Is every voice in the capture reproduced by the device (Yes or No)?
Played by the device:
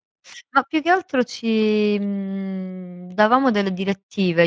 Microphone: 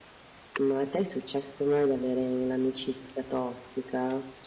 No